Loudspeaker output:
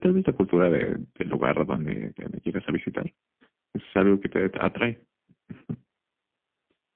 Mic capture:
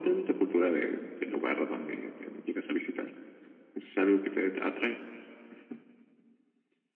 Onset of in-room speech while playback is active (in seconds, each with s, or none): none